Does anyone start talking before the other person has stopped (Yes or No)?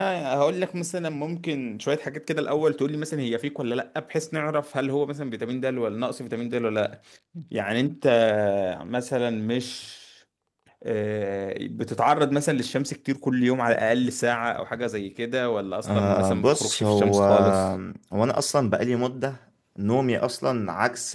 Yes